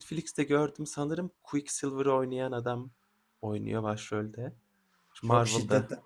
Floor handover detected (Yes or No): Yes